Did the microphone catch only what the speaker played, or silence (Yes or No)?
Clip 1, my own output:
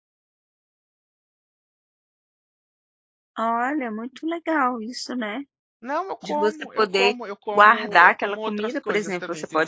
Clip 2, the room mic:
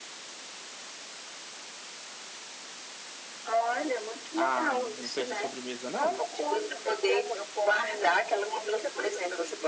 No